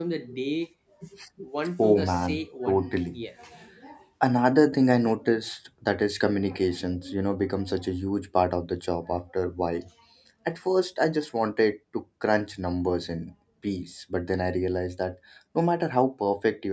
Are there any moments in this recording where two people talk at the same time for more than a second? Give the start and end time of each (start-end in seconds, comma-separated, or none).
1.8-3.2